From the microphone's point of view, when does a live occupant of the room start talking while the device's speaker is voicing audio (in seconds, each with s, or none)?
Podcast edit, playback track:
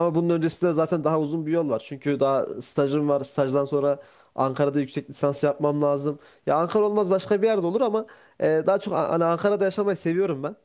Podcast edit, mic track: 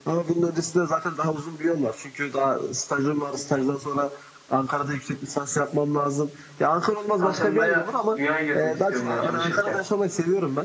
7.1 s